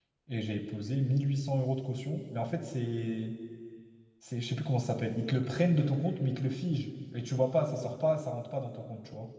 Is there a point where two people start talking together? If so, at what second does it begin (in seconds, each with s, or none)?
none